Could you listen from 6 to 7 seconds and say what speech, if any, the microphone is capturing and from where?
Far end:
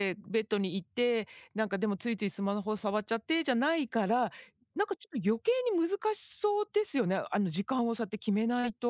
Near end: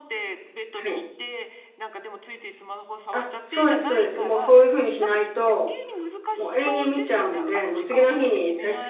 both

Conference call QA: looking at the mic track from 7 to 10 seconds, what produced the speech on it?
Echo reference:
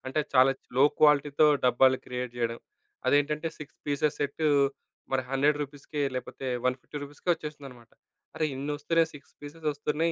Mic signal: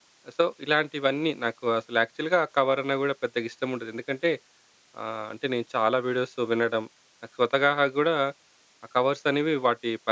user only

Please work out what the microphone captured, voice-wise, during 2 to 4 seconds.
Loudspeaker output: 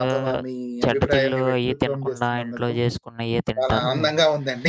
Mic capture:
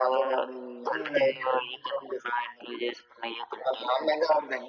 echo only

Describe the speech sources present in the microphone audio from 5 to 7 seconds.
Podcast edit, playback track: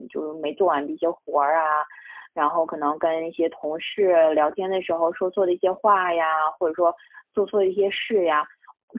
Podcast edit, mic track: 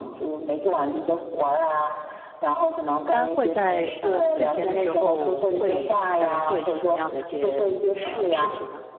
both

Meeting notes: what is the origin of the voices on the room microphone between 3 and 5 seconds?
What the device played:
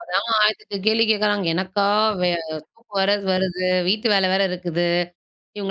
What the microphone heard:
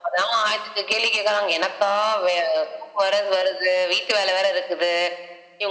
echo only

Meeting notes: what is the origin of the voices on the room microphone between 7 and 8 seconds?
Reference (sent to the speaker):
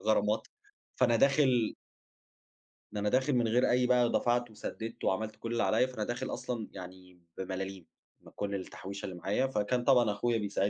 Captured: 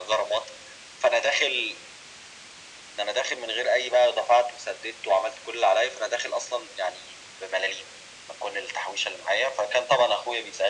echo only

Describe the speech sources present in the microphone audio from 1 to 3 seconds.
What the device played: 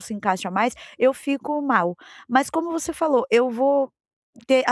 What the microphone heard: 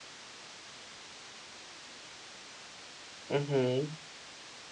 neither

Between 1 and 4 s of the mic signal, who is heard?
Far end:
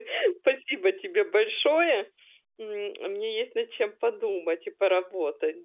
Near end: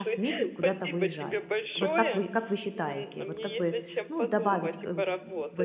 both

